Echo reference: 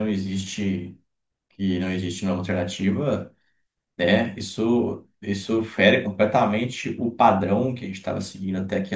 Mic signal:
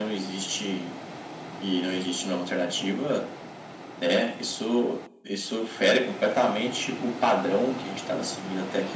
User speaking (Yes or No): No